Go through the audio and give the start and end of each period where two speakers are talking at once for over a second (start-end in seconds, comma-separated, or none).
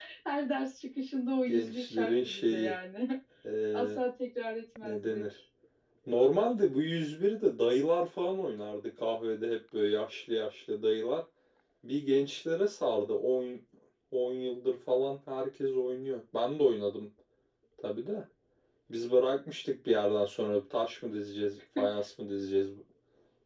1.5-2.8